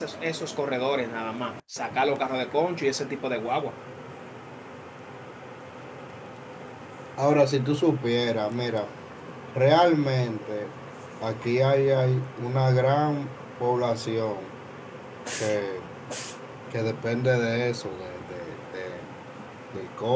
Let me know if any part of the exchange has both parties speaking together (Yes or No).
No